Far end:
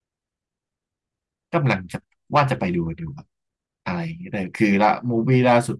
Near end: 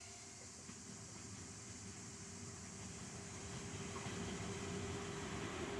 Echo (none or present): none